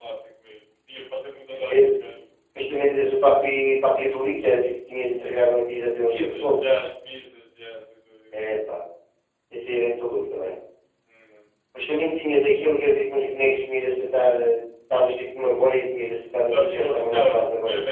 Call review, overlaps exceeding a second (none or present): present